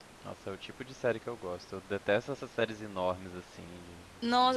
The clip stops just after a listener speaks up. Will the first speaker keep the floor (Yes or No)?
No